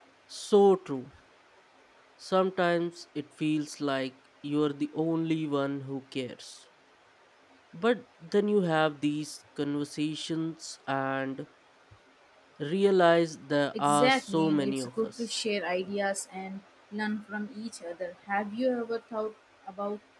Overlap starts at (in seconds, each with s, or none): 13.7 s